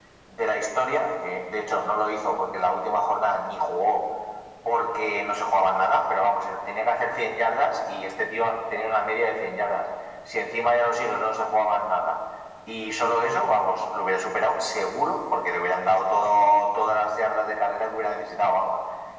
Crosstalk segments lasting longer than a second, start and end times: none

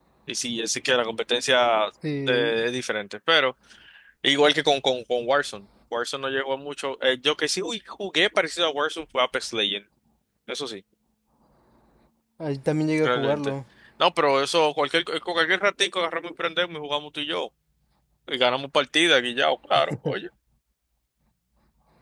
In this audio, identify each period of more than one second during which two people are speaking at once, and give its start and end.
none

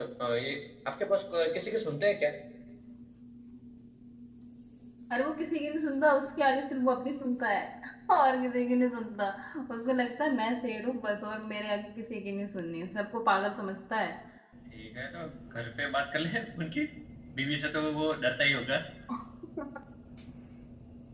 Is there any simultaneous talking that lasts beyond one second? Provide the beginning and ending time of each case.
none

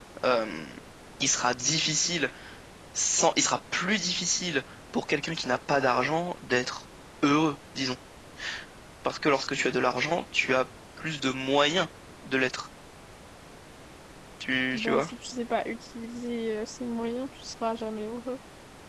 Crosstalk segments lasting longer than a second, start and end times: none

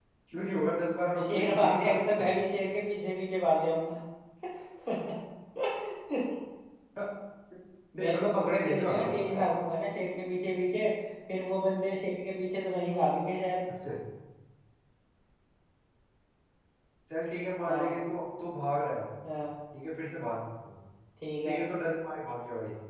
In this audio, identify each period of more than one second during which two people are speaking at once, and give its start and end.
1.1-2.3, 8.0-9.2

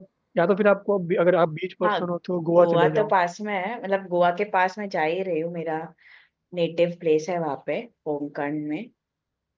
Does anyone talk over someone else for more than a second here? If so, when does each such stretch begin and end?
none

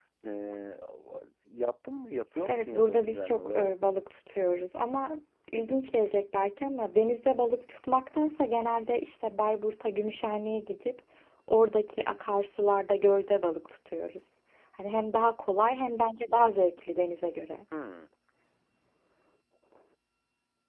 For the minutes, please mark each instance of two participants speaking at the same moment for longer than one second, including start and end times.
2.5-3.7

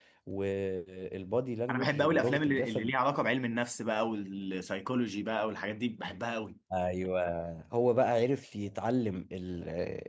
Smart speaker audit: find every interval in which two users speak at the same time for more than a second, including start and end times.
1.7-2.9

